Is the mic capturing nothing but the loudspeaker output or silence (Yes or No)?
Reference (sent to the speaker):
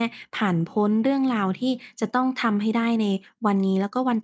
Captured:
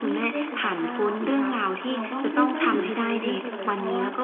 No